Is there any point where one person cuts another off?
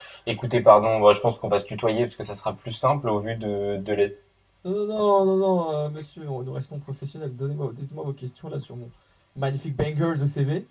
No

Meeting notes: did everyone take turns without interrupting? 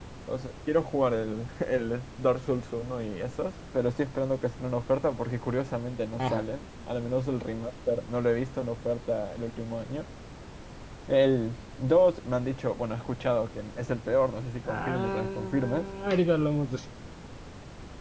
No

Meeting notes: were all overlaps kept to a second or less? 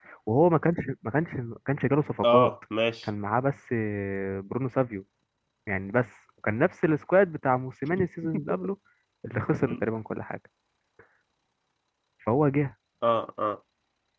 Yes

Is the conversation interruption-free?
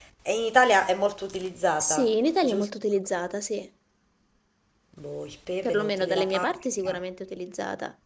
No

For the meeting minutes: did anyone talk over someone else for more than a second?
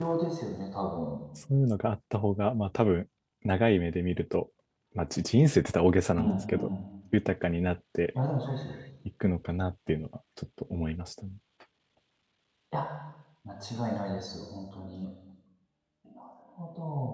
No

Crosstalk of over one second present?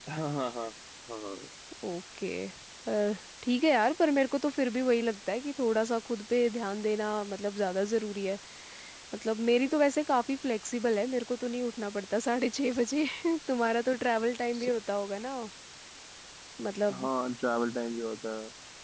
No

